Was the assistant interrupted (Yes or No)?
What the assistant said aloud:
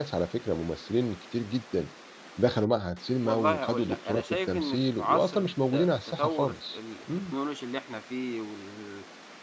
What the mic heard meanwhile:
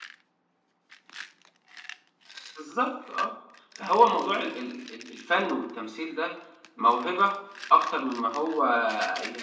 Yes